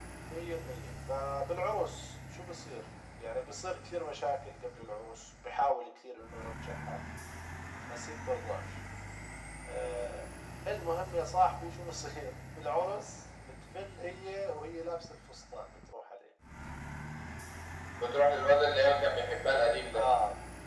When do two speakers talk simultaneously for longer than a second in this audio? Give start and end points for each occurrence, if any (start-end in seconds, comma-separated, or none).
none